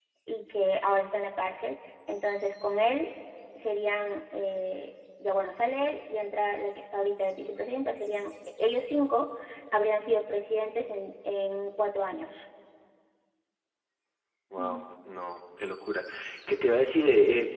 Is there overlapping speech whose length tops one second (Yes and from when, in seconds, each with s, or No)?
No